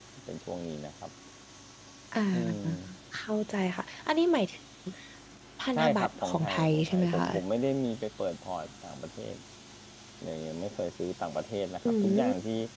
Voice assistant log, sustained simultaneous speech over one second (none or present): present